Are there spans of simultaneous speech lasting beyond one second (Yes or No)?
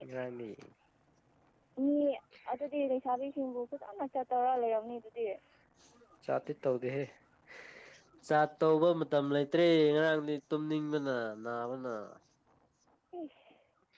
No